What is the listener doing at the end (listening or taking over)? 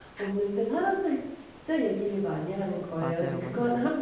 listening